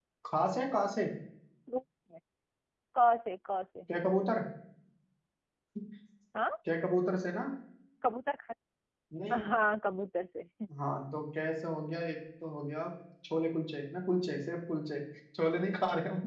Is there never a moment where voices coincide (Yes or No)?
Yes